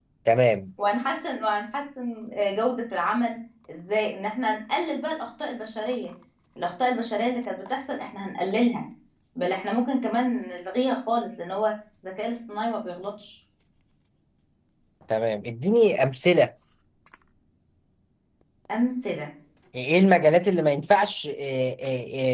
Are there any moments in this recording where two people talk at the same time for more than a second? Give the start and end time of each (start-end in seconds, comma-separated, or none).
none